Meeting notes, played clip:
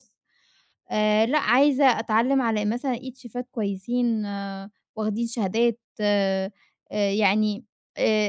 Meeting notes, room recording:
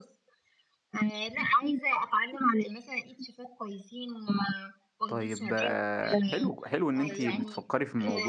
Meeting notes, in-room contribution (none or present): present